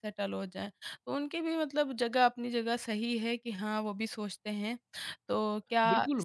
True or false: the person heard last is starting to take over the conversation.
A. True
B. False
A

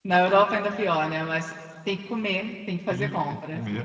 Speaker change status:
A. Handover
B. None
A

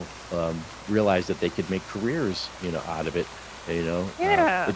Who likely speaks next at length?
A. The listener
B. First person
B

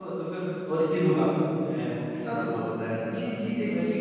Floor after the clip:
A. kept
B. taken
B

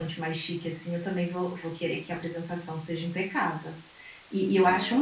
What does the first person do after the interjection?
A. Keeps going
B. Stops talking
A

